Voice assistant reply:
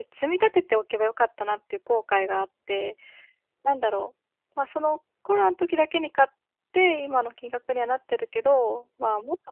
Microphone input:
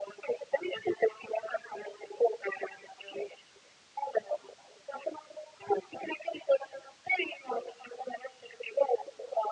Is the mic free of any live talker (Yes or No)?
Yes